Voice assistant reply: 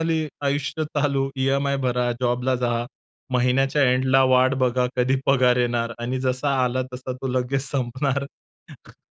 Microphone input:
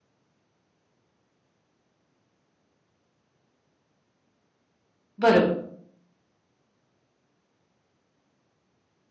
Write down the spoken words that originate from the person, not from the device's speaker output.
बरोबर.

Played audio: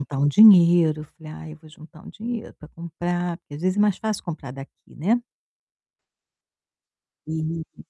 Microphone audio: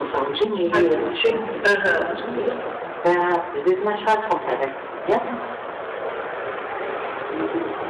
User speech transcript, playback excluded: Vai desistir? Aham.

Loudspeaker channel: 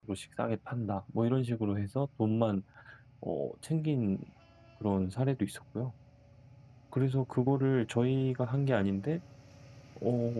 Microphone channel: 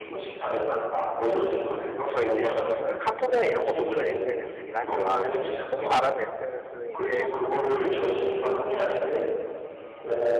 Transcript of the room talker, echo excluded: 저희들이 주로 쓰는 카톡이나 이런 것도 물론 SNS긴 하지만 이제 주 흔히 말하는 SNS는 이제

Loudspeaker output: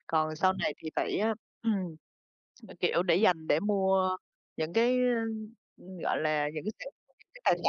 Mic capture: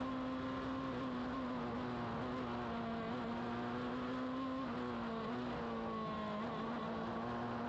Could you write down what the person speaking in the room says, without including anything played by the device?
none

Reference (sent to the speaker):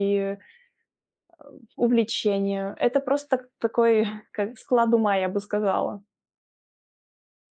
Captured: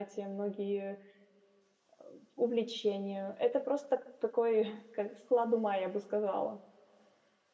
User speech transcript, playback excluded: none

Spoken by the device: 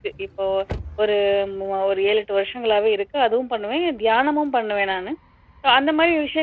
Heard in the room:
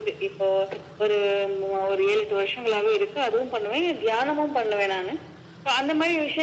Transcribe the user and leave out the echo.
none

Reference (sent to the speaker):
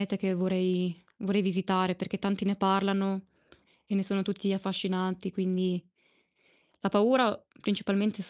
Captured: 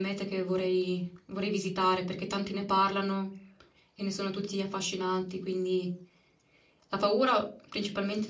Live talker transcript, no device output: none

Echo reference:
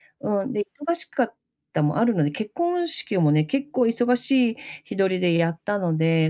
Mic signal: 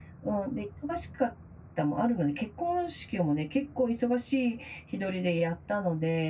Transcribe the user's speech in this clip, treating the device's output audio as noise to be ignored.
none

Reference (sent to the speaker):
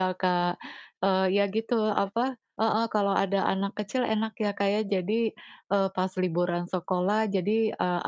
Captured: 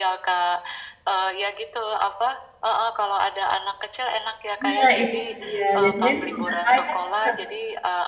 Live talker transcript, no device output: Nah, itu dia, biasanya itu tugas saya sih, Kak.

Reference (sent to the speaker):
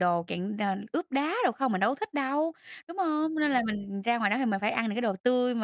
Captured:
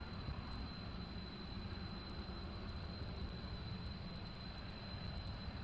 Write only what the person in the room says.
none

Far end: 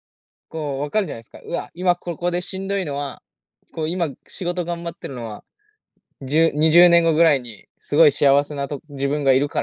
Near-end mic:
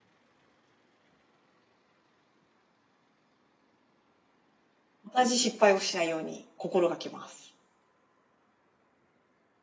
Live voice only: 同じ失敗をしないように心がけます。

